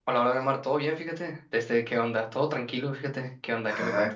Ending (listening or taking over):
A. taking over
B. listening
A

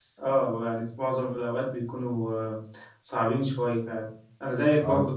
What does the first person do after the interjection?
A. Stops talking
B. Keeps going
B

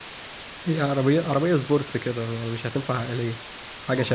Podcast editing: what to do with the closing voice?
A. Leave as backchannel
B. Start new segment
B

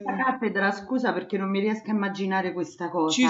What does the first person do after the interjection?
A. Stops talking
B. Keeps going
A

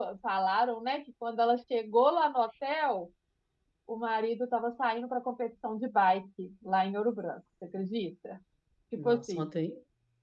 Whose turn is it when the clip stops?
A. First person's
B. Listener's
B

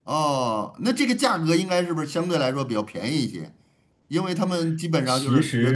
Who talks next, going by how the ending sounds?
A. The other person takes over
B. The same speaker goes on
B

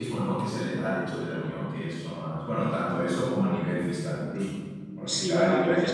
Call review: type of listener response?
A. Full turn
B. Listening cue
A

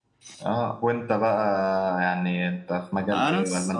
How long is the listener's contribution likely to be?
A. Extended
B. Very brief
A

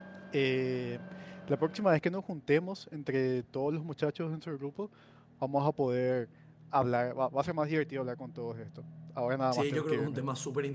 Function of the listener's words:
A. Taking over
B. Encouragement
A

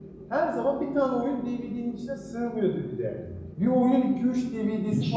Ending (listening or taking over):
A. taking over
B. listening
A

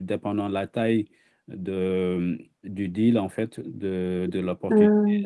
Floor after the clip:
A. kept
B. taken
A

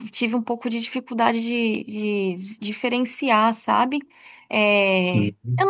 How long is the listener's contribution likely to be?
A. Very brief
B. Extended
A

